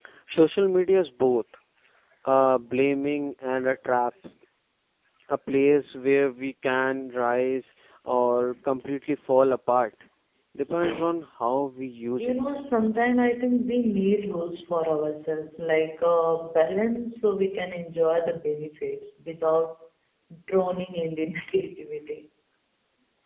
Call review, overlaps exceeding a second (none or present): none